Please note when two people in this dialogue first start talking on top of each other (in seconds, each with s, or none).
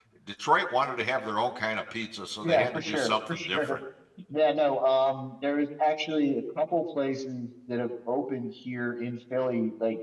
2.4 s